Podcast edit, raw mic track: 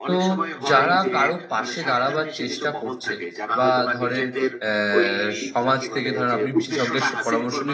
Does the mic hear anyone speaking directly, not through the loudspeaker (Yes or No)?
Yes